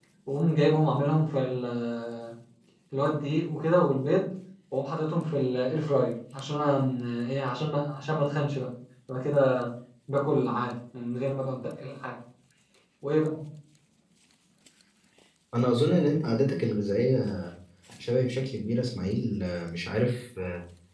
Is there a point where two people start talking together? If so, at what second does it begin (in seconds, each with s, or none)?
none